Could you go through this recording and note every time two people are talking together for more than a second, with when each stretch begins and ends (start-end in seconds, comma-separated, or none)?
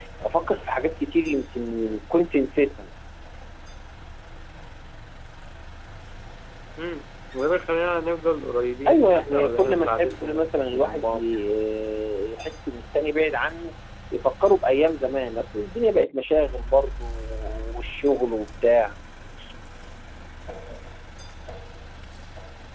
8.9-11.2